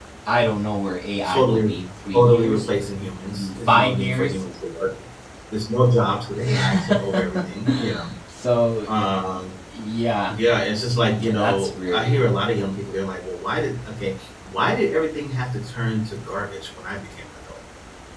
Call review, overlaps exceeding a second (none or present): present